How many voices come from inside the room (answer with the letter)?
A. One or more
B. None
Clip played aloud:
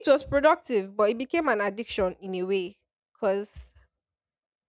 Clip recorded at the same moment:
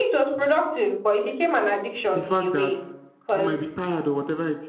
A